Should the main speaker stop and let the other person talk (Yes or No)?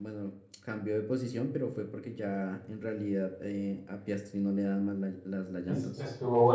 Yes